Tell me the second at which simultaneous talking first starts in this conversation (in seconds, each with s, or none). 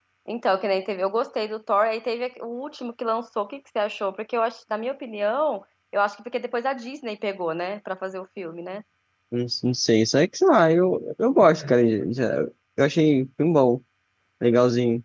none